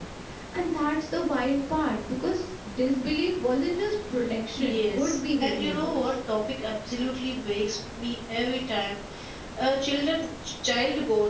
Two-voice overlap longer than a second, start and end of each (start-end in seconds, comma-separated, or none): 4.6-6.0